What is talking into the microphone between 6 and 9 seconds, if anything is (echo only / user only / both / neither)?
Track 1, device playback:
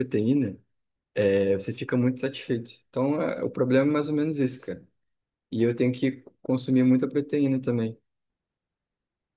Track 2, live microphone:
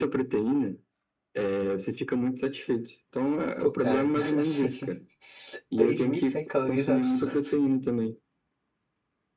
both